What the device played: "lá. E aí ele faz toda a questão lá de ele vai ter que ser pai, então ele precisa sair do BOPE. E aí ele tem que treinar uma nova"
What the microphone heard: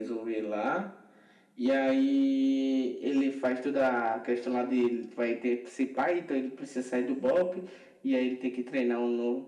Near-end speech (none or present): none